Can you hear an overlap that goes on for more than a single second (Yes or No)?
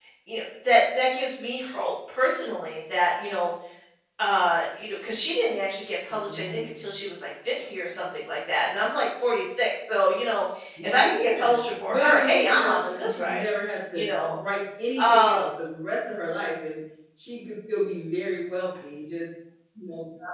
Yes